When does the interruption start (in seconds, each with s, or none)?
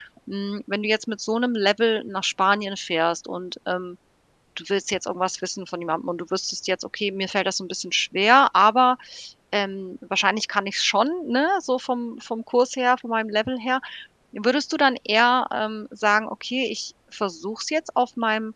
none